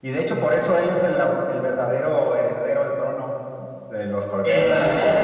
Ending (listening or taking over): taking over